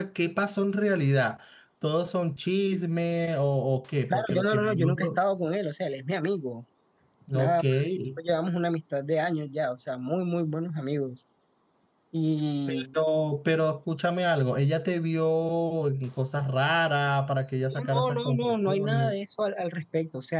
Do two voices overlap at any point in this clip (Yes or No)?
Yes